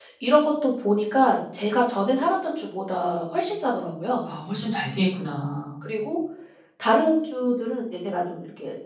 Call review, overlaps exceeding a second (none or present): none